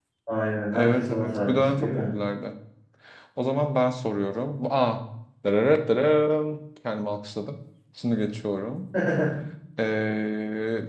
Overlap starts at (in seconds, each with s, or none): 0.7 s